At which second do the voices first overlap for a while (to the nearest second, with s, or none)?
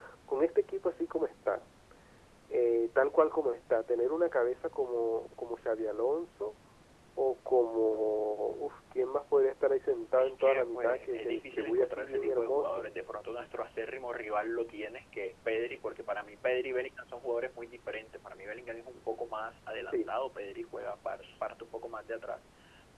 10 s